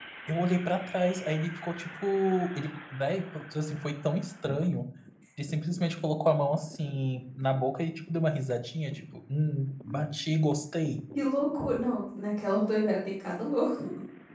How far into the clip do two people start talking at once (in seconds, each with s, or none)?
none